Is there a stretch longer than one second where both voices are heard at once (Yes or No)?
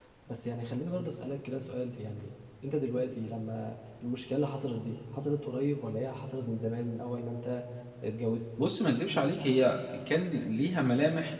No